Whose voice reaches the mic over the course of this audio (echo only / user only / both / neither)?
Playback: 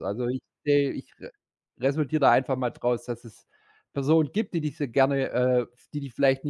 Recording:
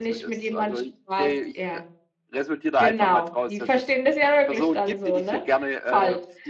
both